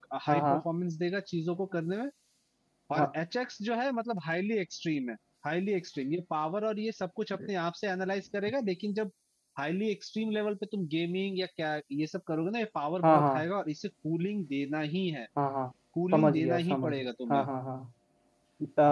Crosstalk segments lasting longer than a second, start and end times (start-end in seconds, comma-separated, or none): 16.1-17.4